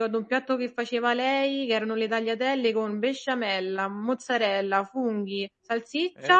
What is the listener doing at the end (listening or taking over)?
listening